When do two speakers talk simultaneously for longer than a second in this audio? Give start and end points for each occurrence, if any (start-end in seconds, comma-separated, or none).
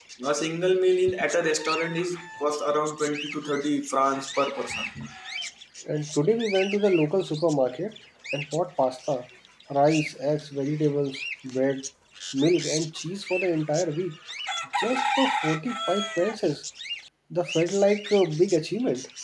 none